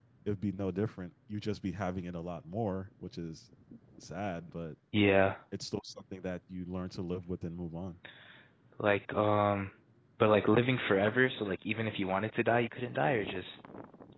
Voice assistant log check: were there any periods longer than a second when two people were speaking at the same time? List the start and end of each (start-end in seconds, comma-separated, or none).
none